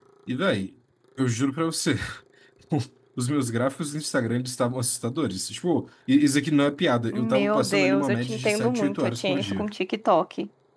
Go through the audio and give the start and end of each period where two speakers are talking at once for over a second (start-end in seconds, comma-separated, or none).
7.1-9.7